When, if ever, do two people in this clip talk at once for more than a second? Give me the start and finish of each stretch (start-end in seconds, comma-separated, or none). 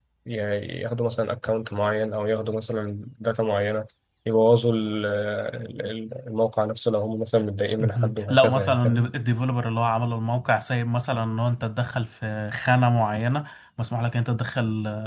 7.8-9.1